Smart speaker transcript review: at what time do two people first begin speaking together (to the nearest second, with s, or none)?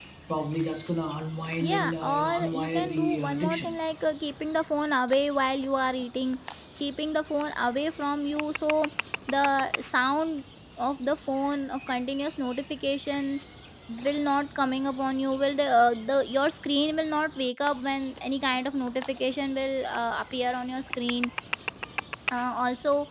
2 s